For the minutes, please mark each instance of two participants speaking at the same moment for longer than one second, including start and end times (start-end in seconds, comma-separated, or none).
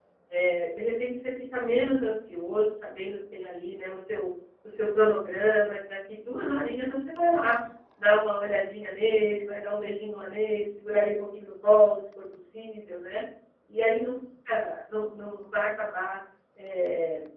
none